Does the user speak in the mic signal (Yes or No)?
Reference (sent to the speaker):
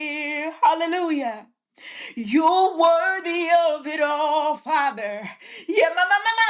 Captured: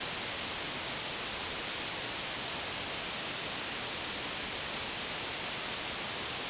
No